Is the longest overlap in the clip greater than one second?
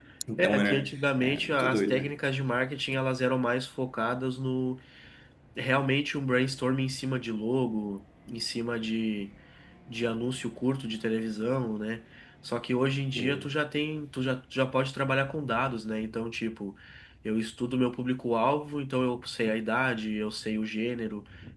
Yes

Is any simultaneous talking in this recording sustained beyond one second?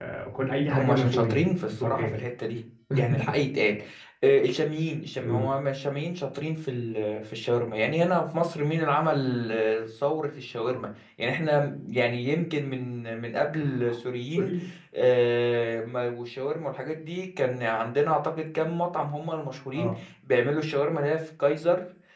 Yes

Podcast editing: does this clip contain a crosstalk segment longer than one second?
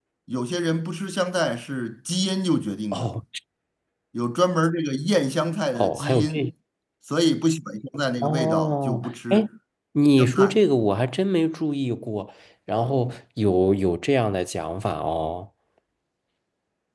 Yes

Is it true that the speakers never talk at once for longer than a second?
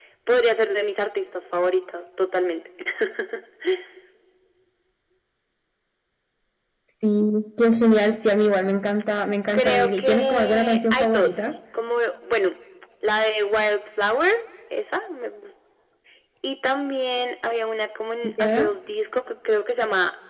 No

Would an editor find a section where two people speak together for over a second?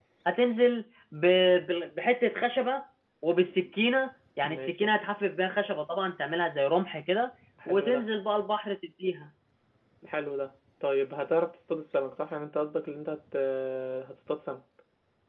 No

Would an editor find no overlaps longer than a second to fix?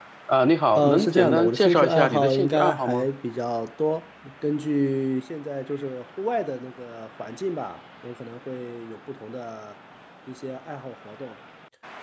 No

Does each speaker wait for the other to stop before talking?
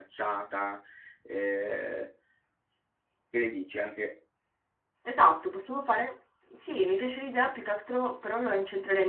Yes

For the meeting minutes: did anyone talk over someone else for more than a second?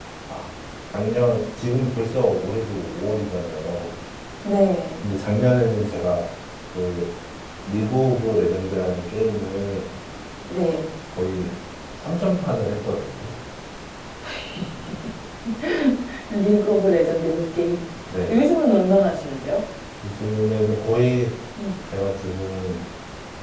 No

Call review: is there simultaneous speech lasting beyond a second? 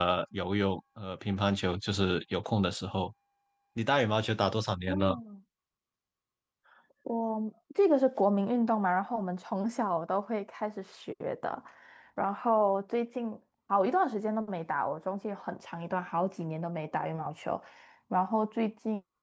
No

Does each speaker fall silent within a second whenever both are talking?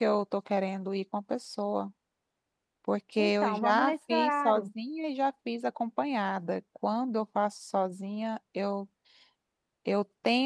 No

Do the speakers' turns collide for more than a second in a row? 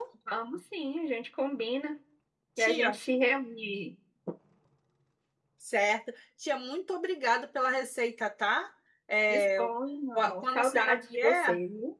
Yes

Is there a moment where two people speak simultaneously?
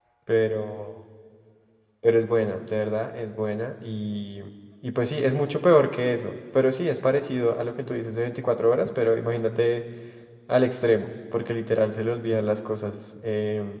No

